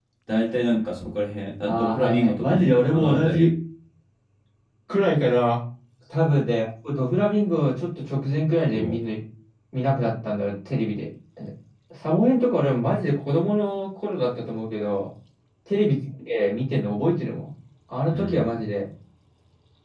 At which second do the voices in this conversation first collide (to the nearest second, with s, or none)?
2 s